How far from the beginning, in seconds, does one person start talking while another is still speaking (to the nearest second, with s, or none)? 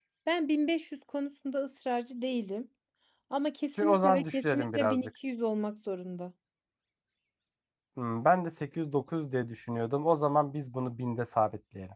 4 s